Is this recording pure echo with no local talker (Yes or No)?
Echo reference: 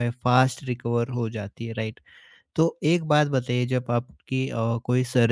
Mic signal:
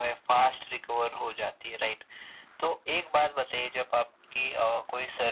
Yes